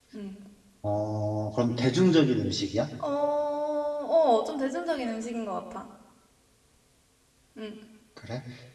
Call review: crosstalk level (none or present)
none